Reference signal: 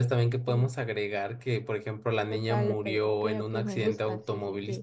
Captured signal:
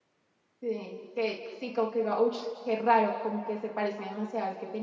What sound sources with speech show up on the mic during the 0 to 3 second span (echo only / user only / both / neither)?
user only